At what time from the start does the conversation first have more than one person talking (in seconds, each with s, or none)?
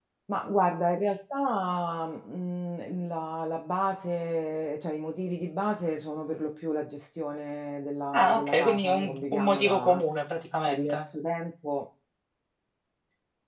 8.1 s